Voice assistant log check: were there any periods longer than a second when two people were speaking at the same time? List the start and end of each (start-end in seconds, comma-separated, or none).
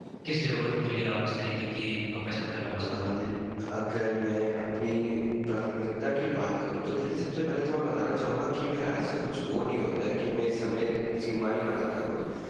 none